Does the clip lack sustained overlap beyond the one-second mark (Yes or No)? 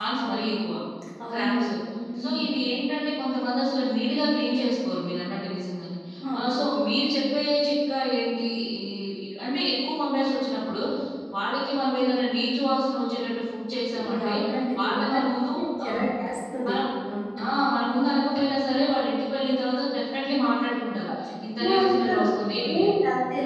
No